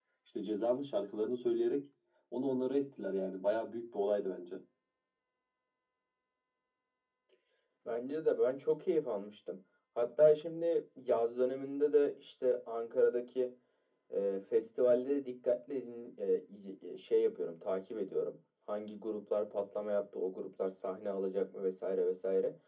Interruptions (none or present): none